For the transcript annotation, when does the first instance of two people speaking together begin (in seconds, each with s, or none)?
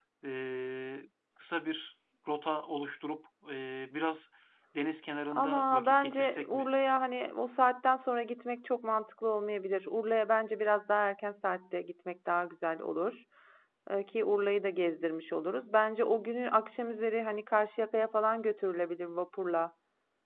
5.3 s